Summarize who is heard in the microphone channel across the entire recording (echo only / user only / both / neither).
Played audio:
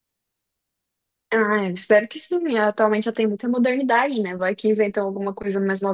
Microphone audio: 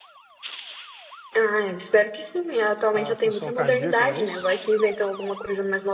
both